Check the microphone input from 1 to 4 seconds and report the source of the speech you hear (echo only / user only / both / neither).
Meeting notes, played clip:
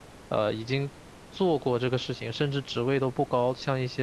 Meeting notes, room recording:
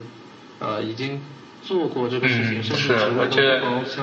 both